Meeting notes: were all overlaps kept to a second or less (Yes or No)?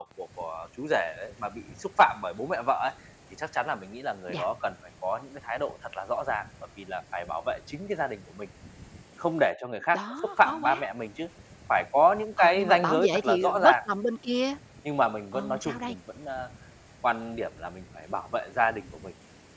No